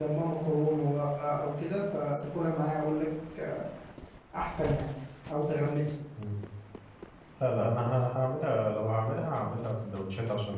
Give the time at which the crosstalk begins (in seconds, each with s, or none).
none